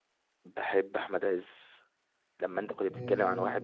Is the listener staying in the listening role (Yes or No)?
Yes